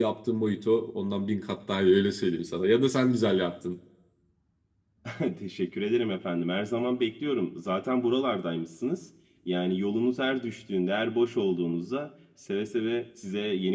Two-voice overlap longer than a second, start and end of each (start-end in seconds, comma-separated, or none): none